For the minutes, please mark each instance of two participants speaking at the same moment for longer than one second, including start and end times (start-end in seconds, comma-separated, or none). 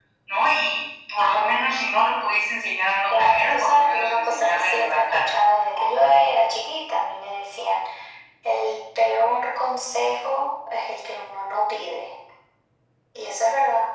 3.1-5.2